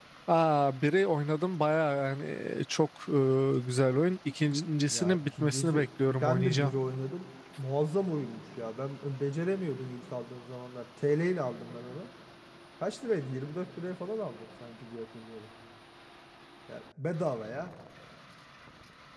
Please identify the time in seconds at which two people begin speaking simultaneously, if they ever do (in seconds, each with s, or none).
4.9 s